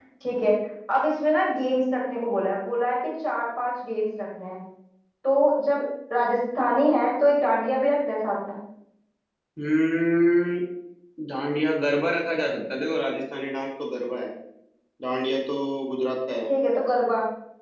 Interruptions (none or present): none